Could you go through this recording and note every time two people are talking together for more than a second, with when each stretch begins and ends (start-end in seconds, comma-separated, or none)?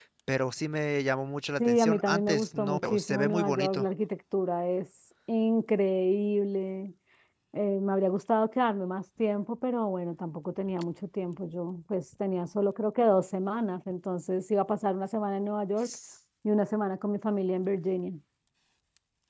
1.6-3.8